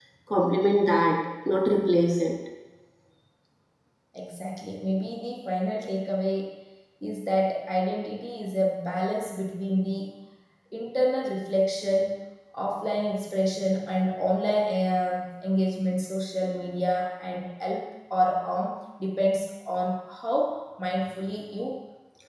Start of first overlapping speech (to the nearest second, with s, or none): none